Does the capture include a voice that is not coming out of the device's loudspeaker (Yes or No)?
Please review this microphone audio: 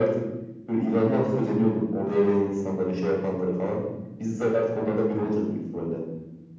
No